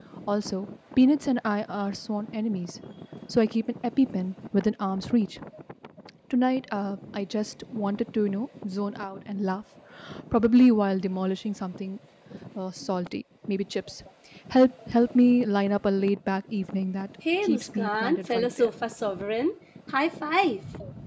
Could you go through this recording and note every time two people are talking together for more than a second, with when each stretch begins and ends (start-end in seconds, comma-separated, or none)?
17.4-18.7